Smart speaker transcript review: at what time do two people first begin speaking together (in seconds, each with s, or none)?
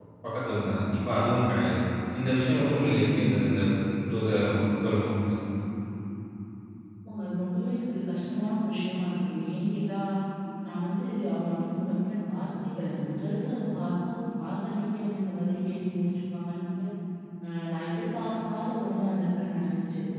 none